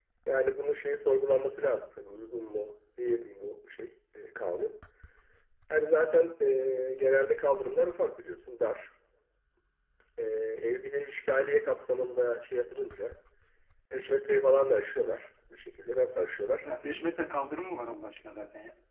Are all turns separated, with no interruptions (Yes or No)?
Yes